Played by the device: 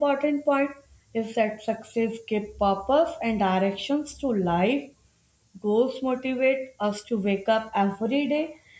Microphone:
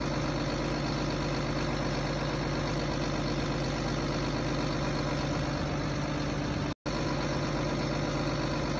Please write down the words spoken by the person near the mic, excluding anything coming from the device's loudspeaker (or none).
none